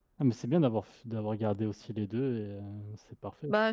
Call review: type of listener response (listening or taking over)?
taking over